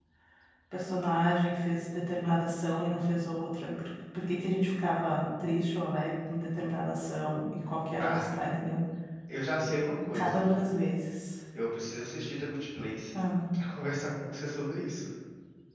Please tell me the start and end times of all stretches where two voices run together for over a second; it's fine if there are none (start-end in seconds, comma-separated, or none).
none